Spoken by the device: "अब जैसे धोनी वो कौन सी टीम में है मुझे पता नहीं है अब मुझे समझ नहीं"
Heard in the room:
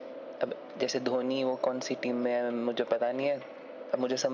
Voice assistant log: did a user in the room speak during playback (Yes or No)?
No